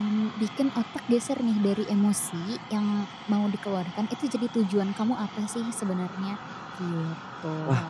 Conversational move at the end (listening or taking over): taking over